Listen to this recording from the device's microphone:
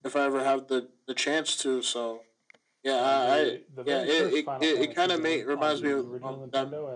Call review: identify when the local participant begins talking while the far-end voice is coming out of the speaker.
3.0 s

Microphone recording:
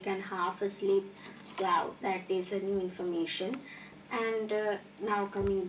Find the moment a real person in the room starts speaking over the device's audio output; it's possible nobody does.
none

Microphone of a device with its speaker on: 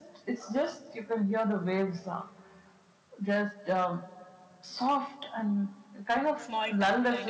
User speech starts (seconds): 6.4 s

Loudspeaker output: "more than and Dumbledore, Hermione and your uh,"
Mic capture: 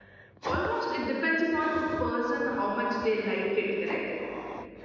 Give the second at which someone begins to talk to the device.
0.5 s

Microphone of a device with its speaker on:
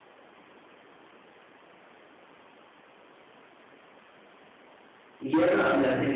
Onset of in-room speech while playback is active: 5.2 s

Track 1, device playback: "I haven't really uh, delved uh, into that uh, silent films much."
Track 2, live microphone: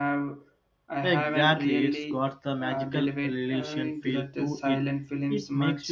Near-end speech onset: 1.1 s

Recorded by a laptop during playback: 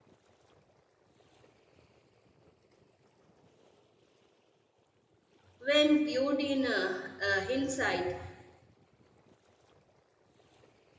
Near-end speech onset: 5.6 s

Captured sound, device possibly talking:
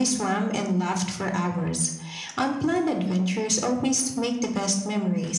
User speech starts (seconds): none

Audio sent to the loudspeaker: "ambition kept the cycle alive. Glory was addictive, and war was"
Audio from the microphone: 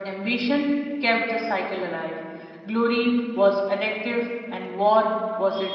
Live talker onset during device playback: none

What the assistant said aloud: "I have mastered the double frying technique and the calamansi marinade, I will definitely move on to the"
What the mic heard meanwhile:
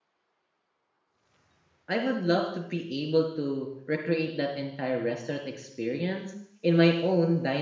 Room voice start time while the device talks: 1.9 s

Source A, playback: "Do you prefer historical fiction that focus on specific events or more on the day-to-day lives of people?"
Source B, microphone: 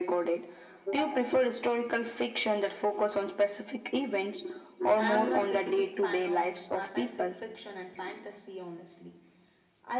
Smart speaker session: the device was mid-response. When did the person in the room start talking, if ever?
5.0 s

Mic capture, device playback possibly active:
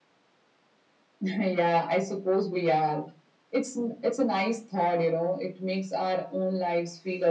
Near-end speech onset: none

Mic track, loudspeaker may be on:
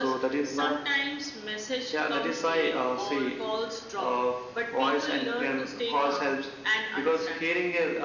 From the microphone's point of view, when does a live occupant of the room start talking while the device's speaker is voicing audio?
none

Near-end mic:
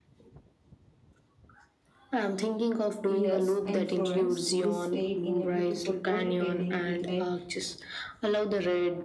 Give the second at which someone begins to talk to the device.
3.0 s

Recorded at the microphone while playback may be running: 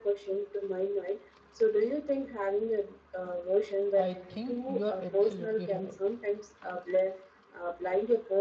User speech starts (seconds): 3.9 s

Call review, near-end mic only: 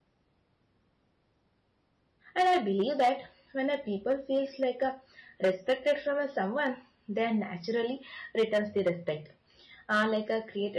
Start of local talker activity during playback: 2.3 s

